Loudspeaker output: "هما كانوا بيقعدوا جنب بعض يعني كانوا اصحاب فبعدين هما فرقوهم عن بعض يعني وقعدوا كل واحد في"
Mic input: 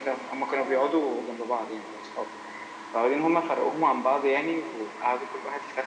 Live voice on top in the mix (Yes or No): No